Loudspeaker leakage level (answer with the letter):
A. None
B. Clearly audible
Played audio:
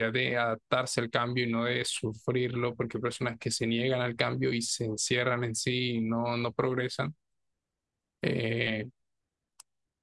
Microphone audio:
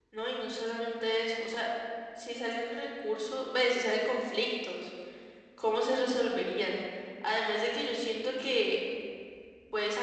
A